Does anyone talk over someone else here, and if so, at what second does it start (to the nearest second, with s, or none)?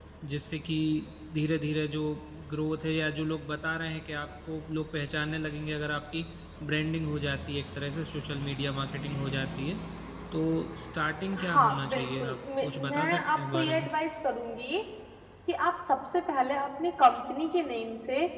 11 s